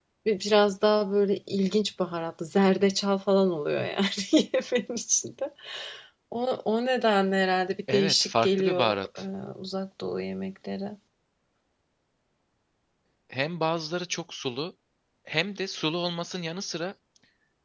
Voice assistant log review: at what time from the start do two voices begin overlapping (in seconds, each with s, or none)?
7.9 s